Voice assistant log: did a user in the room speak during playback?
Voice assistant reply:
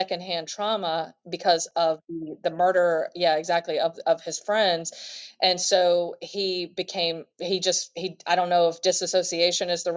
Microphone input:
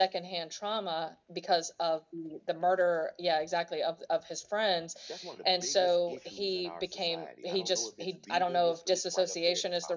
Yes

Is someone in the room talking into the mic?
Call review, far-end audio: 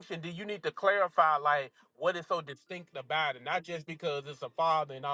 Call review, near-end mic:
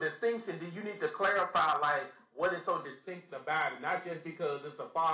No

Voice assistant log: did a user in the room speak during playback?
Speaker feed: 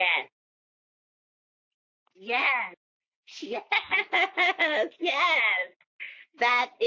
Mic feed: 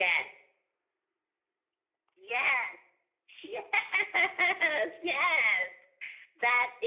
No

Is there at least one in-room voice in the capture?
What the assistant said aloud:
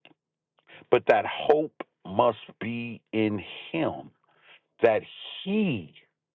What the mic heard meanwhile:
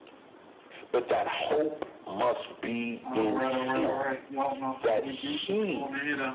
Yes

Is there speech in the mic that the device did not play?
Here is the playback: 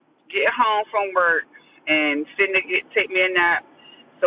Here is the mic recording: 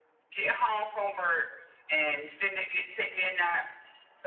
No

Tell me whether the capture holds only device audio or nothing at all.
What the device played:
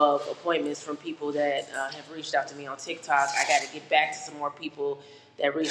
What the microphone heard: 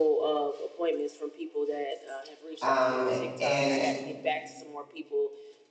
No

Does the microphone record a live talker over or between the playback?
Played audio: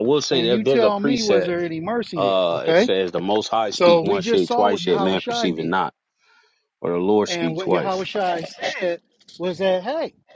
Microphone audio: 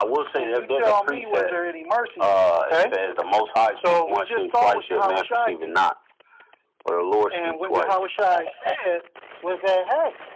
No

